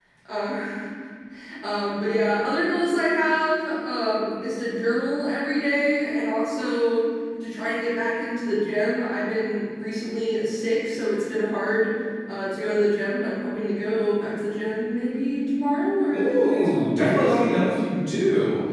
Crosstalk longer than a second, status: present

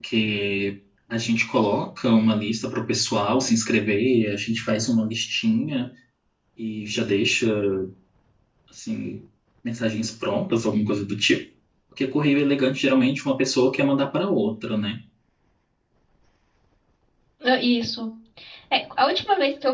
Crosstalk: none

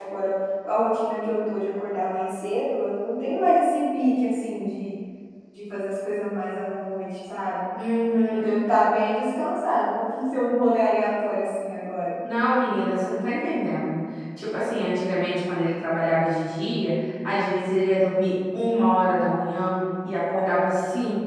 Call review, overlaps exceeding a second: none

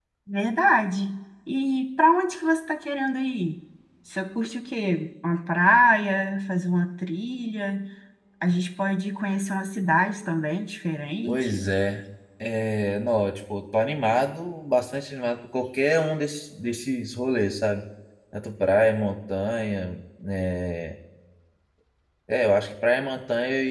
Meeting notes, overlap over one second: none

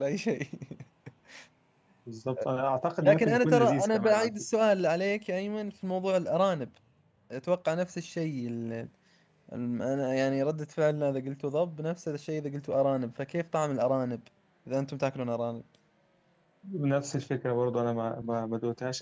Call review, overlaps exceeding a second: present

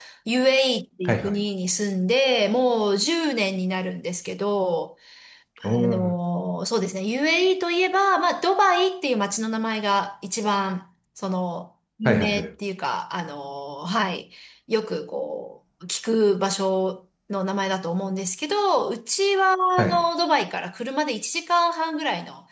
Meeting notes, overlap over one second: none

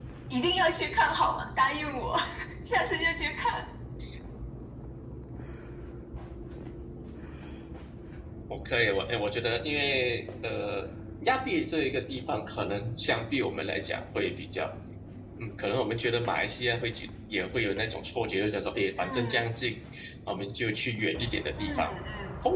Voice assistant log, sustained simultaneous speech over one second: none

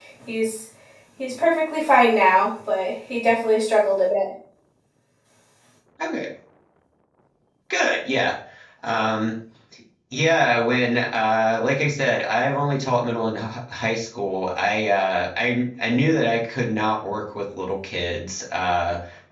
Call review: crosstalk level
none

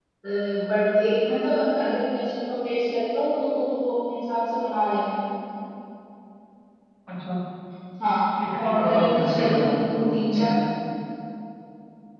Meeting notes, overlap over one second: present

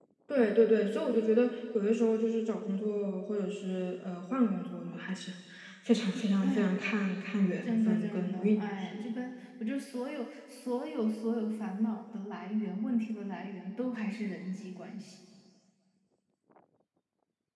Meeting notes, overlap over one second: present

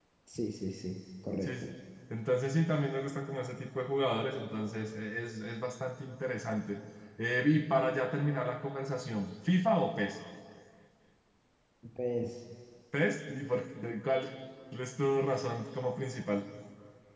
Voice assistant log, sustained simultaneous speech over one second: none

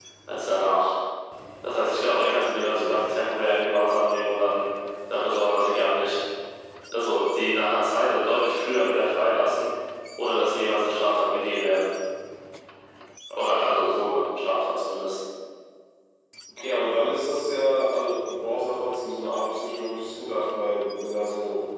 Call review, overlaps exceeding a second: none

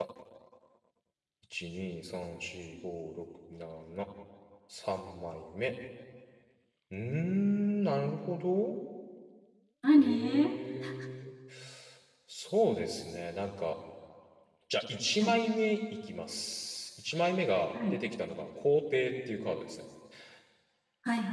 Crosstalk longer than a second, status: none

